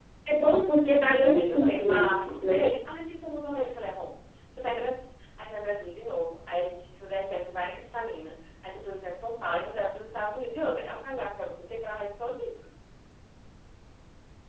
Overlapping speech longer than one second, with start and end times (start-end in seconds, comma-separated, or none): 1.1-2.7